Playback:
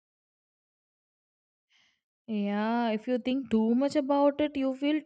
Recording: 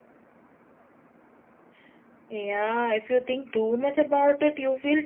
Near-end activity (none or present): none